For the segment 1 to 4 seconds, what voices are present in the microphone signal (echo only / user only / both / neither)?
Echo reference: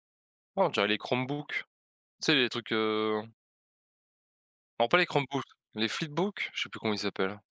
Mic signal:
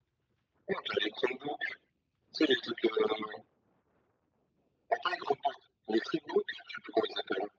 echo only